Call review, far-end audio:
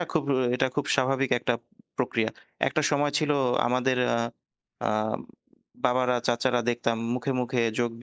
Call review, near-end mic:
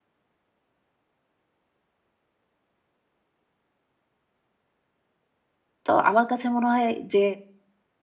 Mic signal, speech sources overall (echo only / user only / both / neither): user only